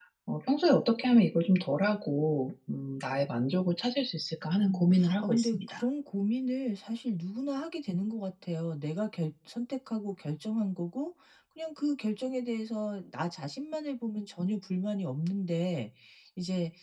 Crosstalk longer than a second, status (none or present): present